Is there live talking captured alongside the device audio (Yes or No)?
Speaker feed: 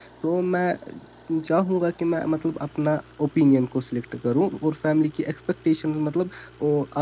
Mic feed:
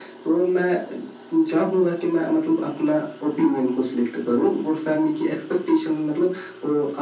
No